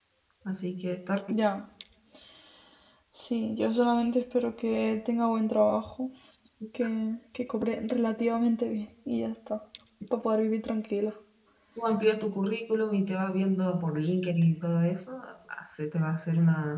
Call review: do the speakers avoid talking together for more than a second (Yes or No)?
Yes